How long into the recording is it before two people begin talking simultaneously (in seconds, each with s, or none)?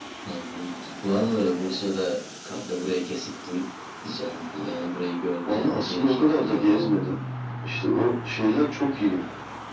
5.5 s